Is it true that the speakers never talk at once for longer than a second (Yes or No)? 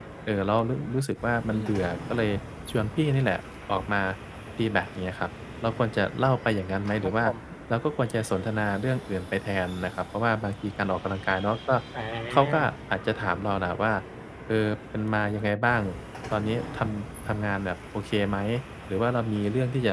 Yes